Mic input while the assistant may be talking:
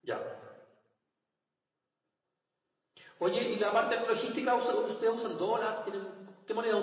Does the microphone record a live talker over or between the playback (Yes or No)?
No